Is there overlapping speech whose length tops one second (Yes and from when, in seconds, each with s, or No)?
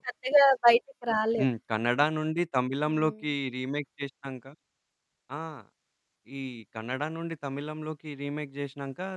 No